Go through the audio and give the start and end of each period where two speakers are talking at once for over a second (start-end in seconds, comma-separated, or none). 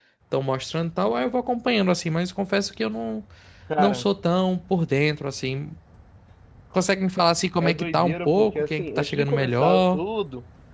7.6-10.0